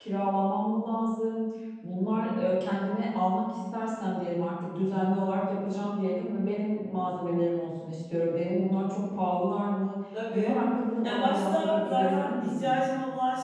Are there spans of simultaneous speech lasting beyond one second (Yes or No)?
Yes